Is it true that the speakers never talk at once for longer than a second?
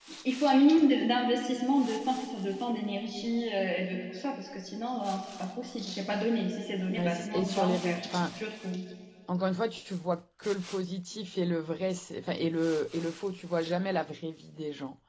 No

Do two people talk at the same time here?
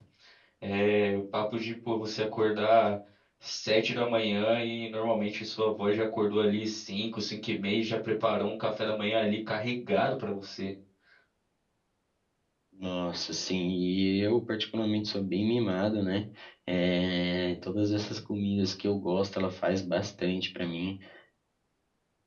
No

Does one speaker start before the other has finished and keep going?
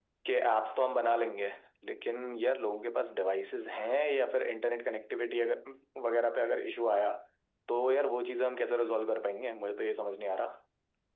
No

